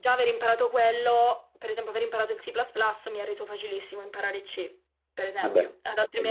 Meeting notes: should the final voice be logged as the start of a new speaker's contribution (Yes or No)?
No